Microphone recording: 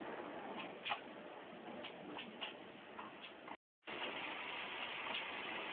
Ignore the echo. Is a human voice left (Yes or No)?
No